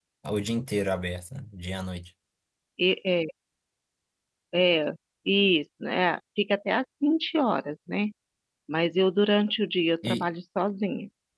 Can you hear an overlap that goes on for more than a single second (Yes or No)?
No